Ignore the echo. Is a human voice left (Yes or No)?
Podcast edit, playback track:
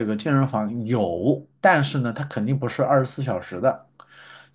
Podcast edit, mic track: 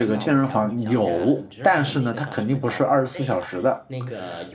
Yes